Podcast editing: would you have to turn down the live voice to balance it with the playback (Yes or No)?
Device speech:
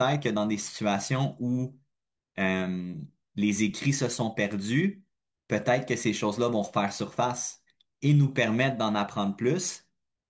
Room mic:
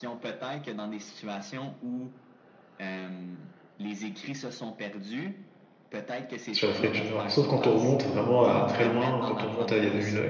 Yes